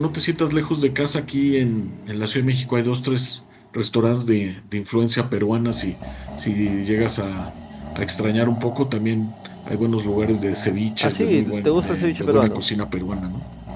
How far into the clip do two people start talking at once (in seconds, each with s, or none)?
11.0 s